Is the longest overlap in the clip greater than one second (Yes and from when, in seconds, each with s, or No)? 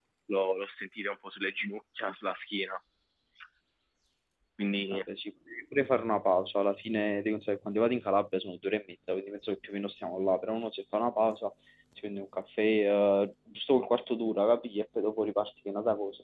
No